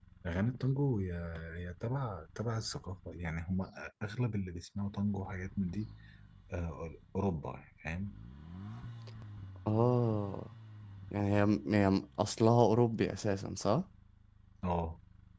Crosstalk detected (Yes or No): No